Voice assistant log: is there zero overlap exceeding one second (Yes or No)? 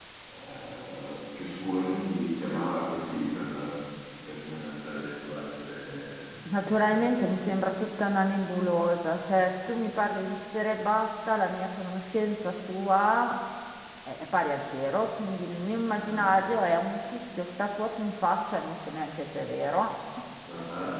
Yes